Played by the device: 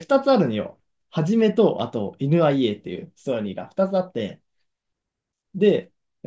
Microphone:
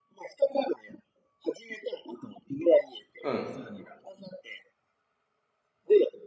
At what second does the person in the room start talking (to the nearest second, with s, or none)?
3 s